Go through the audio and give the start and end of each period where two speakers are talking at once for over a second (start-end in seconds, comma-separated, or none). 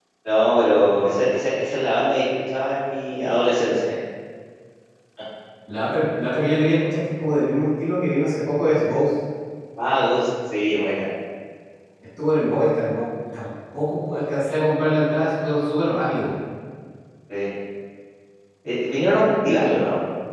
none